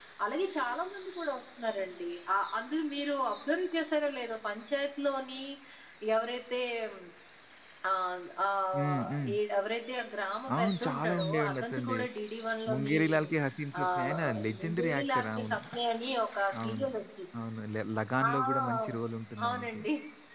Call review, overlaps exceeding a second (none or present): present